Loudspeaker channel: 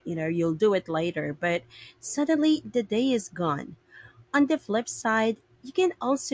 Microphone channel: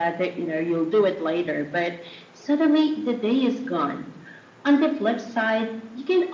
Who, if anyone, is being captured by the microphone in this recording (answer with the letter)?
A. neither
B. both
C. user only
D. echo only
D